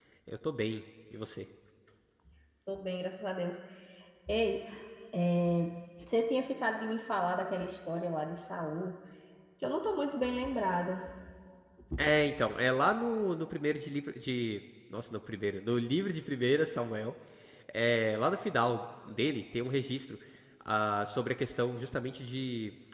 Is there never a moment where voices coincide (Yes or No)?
Yes